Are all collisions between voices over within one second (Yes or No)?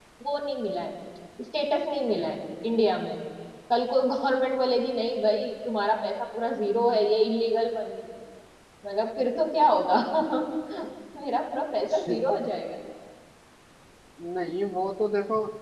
Yes